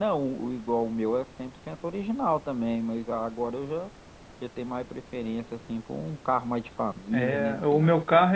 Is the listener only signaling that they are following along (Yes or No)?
No